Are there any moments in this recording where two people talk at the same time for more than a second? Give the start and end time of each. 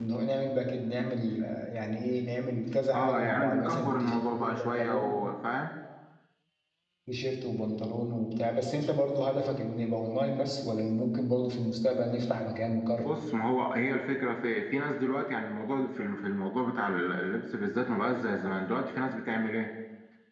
2.9-5.1

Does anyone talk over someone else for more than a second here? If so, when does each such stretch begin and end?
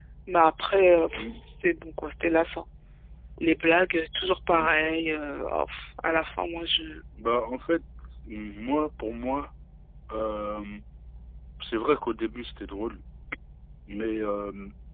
none

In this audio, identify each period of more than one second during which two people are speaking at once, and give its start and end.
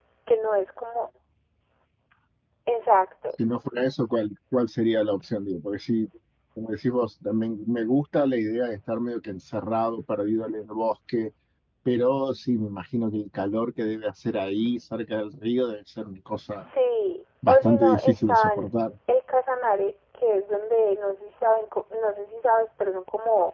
17.5-18.7

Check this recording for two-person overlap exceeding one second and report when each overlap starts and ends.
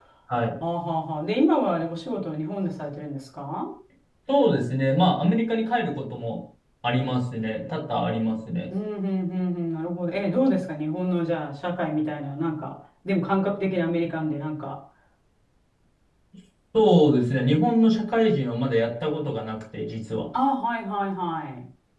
none

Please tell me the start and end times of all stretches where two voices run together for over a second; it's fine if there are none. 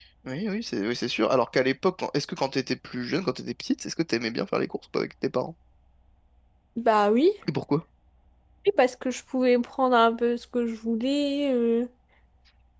none

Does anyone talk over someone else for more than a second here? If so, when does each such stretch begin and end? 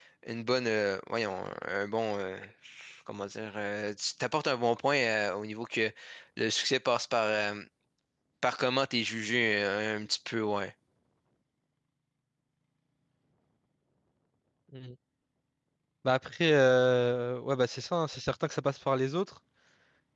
none

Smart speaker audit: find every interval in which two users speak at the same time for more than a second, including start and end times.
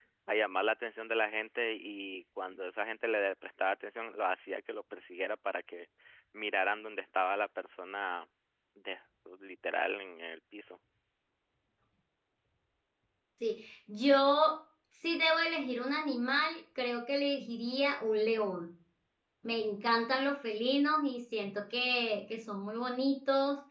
none

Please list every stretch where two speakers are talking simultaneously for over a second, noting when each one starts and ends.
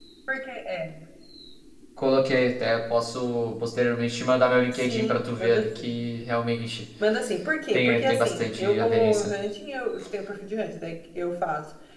4.7-6.0, 7.7-9.3

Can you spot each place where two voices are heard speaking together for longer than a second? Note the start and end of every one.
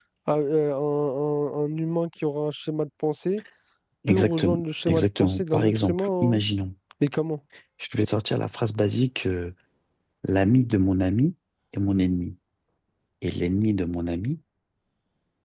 4.1-6.4

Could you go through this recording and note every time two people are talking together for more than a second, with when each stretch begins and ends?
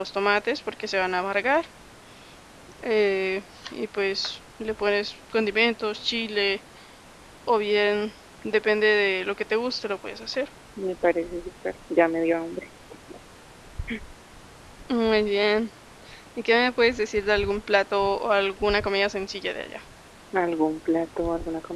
none

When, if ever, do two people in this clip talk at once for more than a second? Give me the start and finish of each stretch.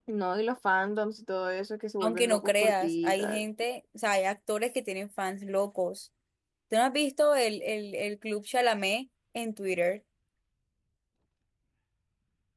2.0-3.4

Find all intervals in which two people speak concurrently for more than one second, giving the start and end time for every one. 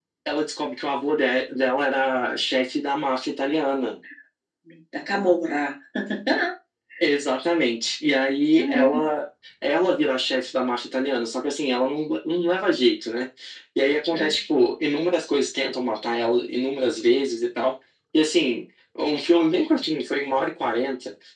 none

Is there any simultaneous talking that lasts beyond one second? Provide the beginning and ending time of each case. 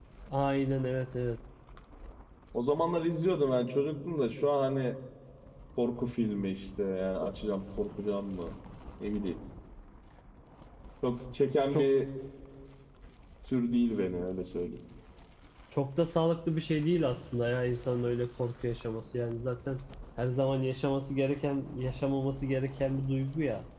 none

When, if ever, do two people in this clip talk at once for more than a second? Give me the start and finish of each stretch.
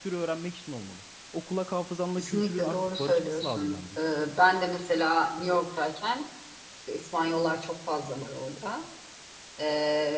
2.2-4.0

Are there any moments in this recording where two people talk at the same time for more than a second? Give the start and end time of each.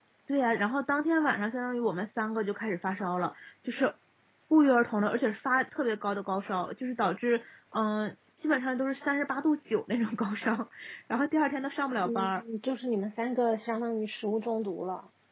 none

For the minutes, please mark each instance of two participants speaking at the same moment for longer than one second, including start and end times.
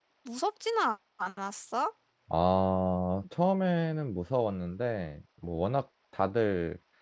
none

